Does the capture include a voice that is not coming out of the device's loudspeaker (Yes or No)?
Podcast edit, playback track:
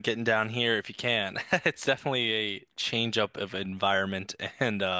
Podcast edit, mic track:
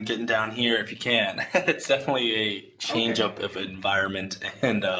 Yes